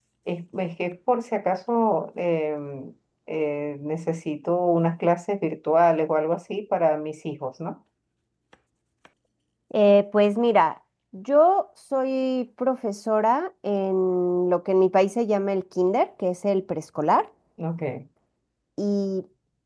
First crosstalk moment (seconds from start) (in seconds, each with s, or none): none